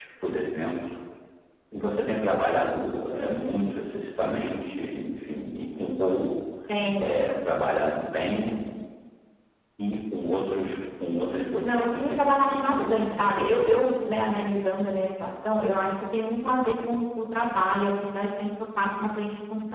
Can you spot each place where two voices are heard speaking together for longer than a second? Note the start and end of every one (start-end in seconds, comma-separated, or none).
11.6-13.9